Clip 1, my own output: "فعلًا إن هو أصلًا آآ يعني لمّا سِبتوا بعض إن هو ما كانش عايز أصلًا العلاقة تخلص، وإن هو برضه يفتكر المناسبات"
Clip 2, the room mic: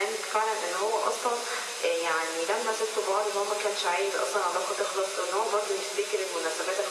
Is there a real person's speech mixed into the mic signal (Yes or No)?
No